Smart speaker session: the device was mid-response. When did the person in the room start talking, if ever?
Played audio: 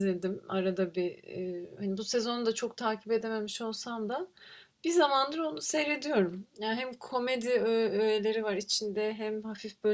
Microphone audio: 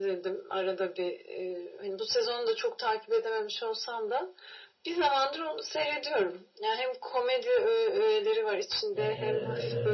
8.9 s

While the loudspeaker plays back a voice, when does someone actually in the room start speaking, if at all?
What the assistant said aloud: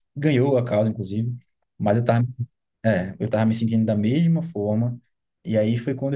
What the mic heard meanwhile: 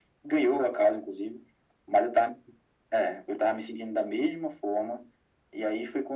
none

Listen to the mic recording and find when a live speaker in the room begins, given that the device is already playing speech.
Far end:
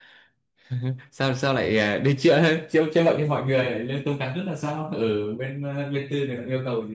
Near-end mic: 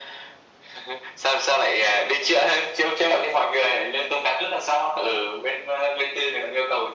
none

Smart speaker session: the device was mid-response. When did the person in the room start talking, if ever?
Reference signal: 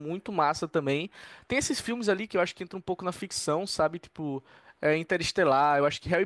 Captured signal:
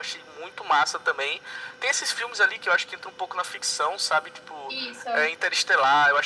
4.7 s

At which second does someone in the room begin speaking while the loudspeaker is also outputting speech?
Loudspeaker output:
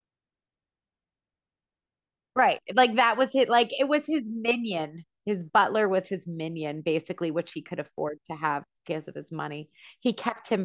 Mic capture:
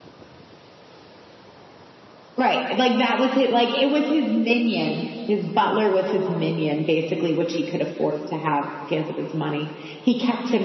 none

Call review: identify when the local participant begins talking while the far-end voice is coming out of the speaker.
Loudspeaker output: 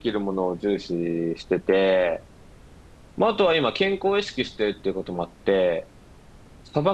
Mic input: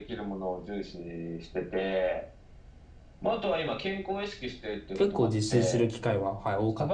4.9 s

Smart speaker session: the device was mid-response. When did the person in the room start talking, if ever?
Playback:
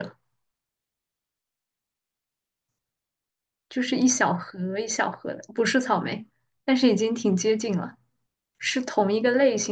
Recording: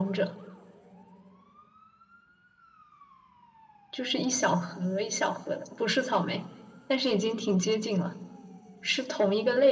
none

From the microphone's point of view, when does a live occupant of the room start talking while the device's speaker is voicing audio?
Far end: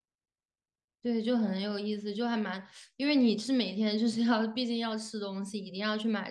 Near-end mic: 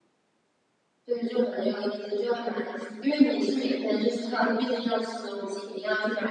none

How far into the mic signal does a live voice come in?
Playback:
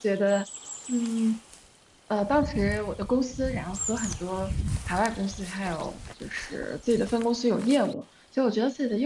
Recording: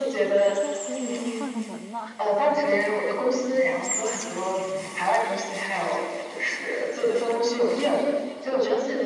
0.6 s

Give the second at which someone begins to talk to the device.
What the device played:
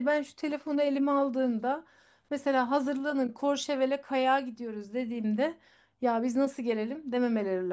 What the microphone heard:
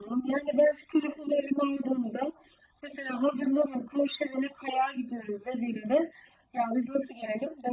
none

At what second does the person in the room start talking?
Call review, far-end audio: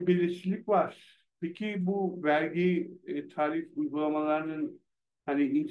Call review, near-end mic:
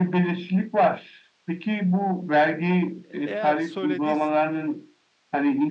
3.0 s

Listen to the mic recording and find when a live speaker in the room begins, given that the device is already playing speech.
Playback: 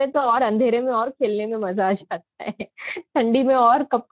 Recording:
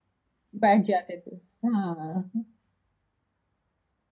0.6 s

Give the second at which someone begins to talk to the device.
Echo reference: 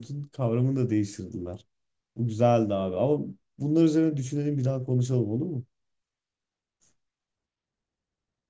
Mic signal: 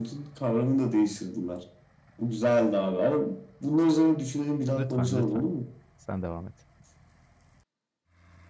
4.8 s

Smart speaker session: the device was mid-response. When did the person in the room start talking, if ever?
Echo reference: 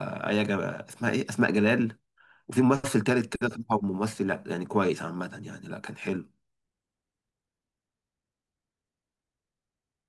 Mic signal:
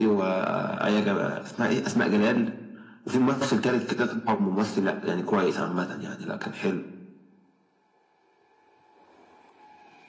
none

